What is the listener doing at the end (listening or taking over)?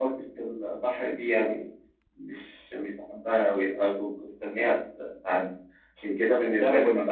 taking over